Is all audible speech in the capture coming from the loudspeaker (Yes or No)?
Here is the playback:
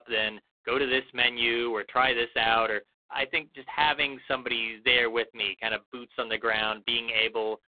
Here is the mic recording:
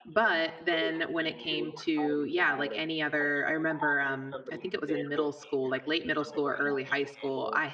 No